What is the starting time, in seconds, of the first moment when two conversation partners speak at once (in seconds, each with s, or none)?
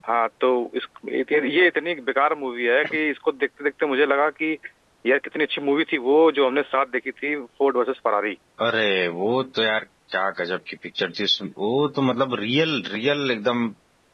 none